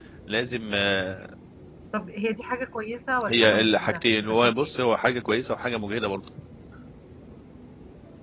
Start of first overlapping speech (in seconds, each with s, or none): 3.3 s